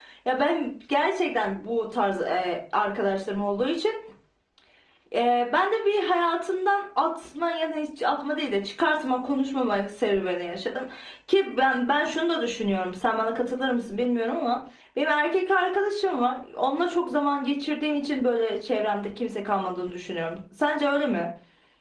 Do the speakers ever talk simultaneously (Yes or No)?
No